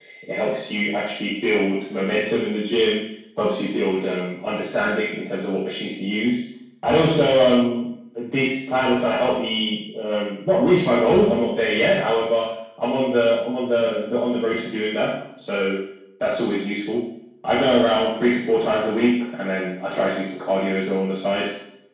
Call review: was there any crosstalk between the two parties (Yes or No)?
No